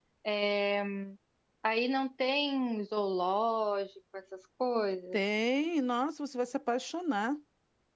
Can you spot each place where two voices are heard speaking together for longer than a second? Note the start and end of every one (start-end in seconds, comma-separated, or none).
none